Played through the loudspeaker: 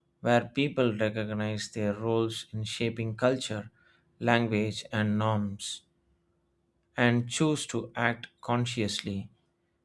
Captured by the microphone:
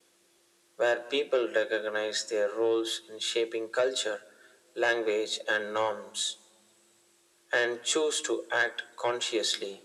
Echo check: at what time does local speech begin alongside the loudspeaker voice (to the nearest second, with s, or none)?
none